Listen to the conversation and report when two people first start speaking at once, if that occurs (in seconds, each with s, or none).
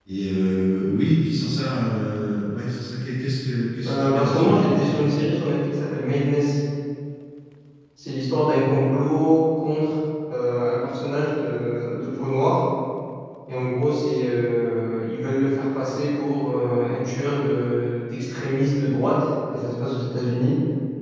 3.9 s